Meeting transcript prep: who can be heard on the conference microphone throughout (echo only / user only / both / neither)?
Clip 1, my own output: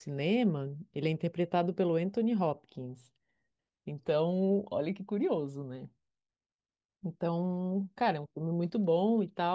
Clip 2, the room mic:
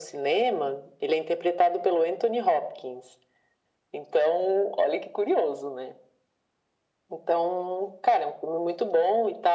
echo only